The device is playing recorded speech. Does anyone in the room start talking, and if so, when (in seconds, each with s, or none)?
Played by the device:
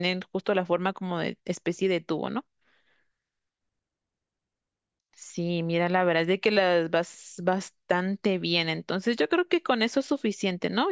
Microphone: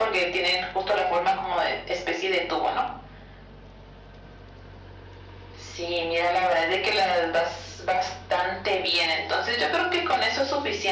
none